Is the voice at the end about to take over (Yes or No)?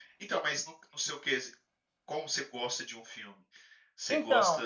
No